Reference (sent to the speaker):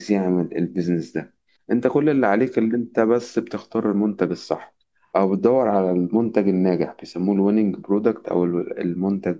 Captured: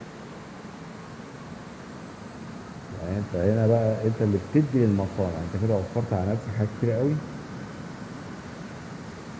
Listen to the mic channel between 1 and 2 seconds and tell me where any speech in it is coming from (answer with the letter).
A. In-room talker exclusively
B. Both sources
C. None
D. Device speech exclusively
C